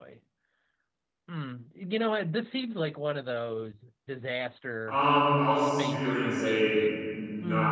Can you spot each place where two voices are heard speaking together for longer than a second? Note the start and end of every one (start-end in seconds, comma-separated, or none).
5.5-6.8